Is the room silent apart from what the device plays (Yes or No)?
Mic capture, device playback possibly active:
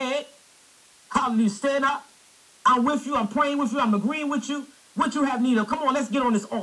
Yes